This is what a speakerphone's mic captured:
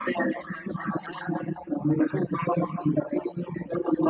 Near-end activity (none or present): none